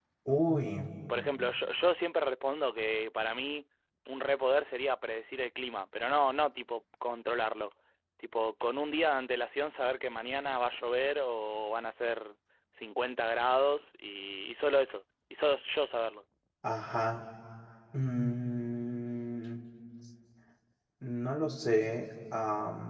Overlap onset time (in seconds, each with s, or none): none